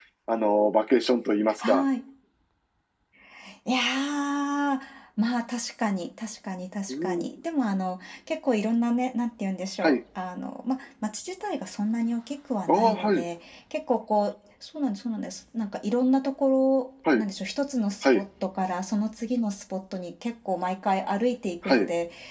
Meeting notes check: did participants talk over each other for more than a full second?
No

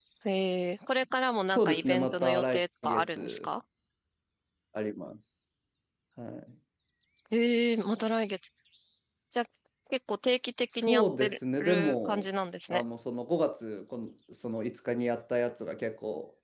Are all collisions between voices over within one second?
No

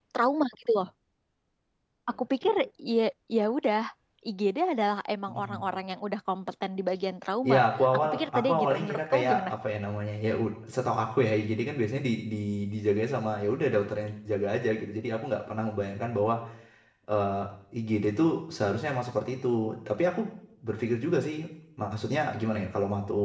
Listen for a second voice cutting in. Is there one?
Yes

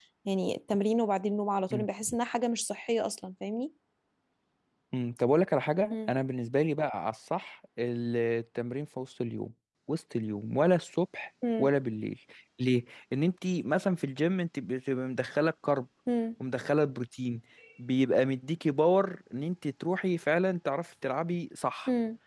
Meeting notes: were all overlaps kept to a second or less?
Yes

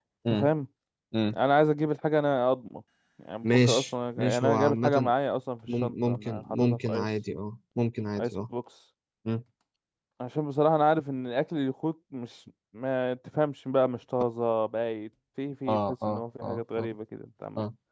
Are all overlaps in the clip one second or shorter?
No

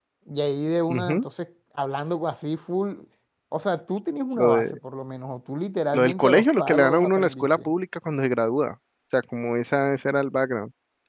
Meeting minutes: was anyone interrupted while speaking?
Yes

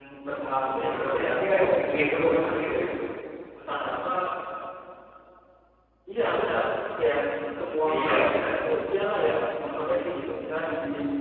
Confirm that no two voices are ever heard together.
No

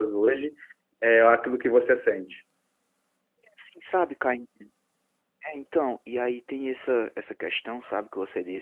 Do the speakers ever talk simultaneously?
No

